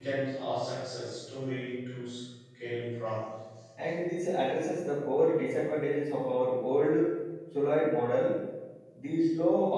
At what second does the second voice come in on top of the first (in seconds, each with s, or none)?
none